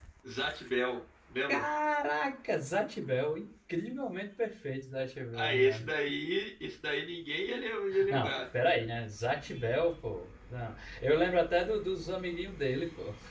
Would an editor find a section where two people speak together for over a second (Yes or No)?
No